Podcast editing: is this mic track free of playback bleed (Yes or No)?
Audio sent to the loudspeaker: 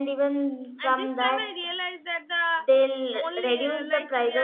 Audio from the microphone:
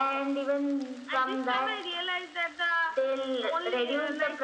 No